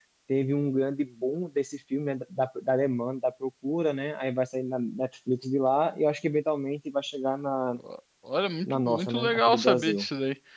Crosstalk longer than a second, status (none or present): present